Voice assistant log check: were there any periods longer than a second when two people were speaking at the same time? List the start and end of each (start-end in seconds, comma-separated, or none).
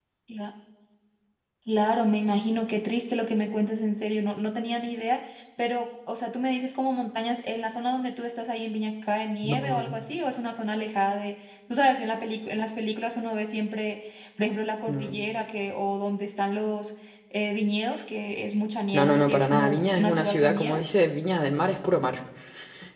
18.9-20.8